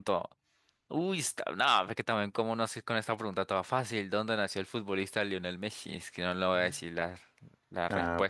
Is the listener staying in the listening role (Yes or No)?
No